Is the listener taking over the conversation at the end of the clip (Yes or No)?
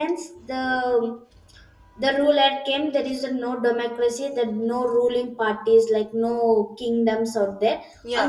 No